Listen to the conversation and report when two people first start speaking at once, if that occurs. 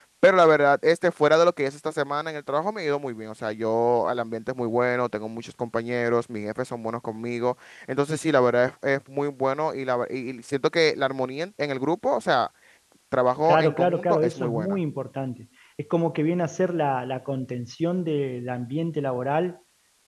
13.4 s

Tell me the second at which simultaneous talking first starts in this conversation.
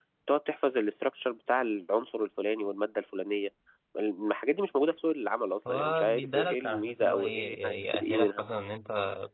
5.7 s

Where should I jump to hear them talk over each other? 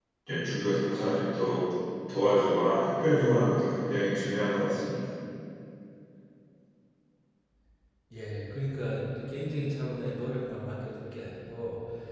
none

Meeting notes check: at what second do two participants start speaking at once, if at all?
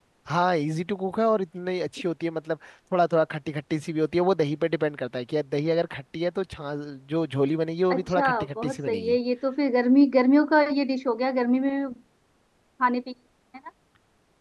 7.9 s

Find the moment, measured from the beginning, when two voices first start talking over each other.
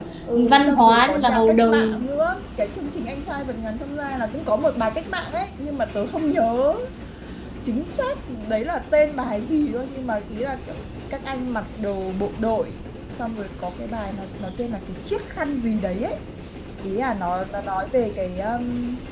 0.5 s

